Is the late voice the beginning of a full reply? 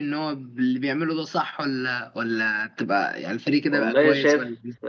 Yes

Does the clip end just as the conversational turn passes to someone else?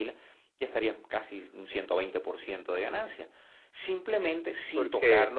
No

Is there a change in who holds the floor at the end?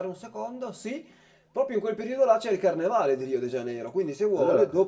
No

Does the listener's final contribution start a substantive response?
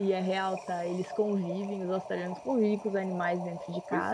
No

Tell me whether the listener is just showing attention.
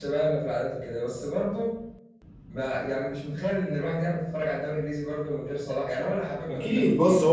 No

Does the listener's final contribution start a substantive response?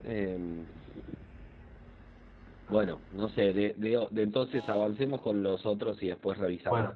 Yes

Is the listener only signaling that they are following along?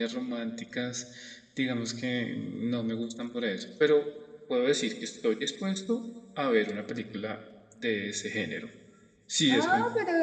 No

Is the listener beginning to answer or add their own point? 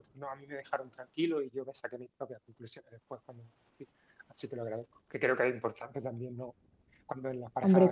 No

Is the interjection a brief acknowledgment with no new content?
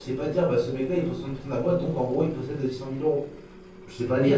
No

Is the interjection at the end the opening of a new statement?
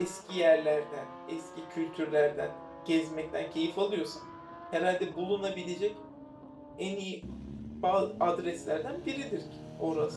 Yes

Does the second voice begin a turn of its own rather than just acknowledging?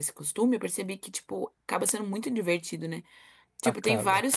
No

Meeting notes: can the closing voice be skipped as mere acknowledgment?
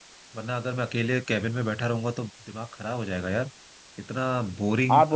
Yes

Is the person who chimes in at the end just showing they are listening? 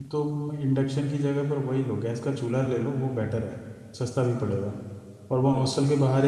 Yes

